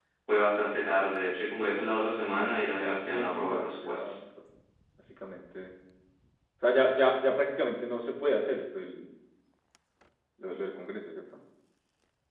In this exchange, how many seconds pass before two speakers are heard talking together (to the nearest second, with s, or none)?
2 s